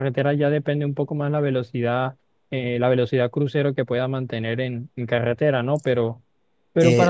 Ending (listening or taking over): taking over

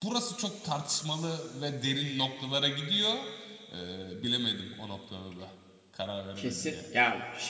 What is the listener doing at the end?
taking over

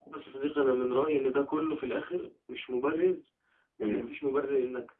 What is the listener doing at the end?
listening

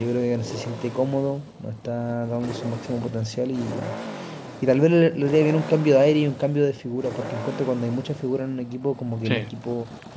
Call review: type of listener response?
listening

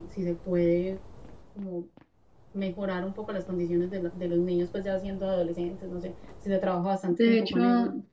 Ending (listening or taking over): taking over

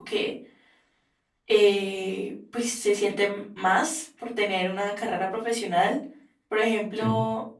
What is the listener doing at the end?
listening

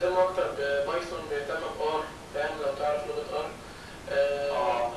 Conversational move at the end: taking over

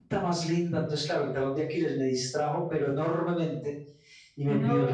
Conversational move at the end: listening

